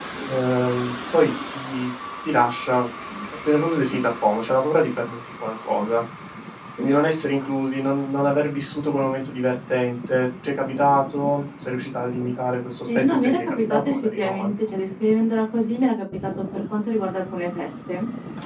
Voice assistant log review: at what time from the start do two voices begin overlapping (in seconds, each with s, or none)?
12.9 s